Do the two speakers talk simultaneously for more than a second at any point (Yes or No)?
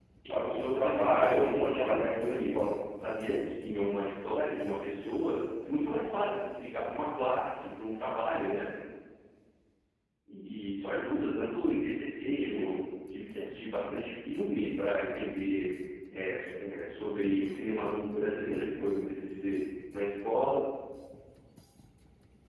Yes